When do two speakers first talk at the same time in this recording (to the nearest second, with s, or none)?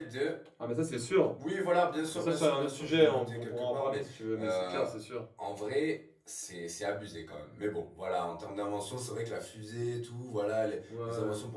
2 s